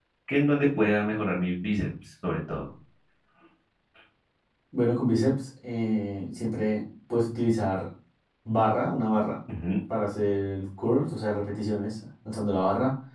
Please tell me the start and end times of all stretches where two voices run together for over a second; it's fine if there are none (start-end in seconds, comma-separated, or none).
none